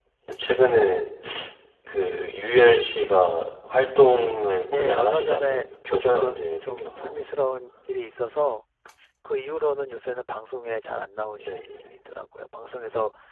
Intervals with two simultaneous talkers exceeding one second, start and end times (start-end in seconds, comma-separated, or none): 4.7-7.1